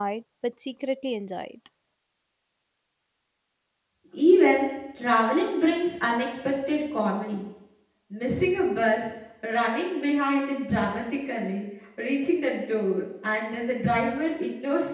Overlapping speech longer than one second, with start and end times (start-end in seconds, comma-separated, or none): none